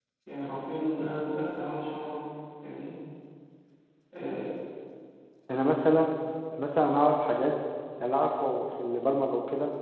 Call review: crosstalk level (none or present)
none